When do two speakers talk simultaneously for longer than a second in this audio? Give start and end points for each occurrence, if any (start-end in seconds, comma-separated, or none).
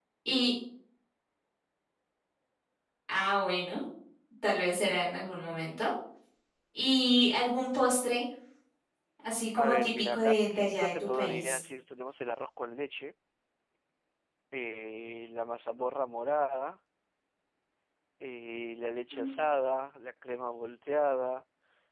9.6-11.6